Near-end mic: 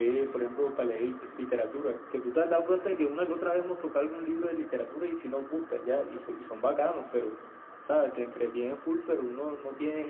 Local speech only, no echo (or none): none